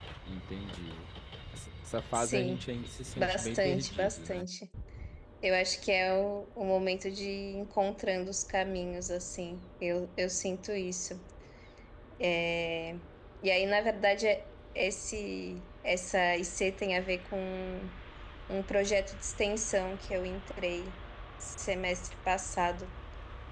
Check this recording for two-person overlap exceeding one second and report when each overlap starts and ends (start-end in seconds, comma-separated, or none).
3.2-4.5